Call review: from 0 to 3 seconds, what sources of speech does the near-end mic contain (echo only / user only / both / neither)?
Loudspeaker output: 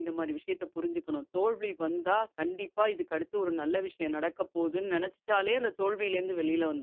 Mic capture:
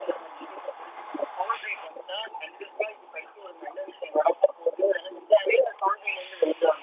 echo only